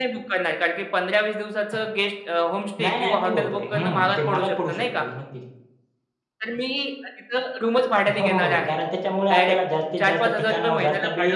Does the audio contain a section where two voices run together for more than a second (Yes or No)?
Yes